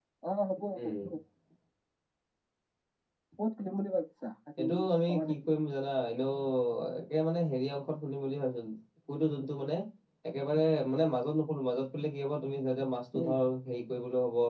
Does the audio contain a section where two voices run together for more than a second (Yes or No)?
No